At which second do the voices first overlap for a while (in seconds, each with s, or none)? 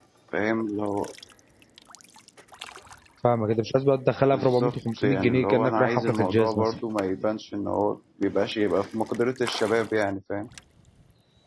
4.3 s